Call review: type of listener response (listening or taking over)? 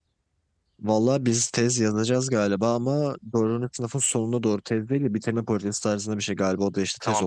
taking over